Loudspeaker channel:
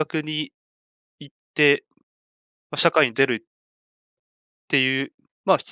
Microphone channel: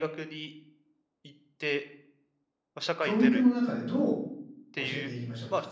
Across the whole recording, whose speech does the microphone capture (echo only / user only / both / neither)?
both